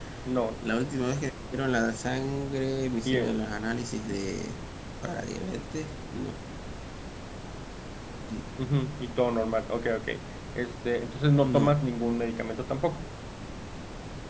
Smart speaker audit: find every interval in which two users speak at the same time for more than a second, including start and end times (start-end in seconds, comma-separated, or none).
none